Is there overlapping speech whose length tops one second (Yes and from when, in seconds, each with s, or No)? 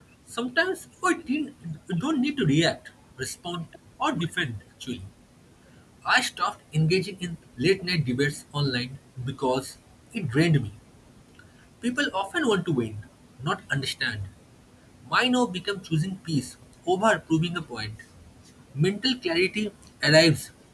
No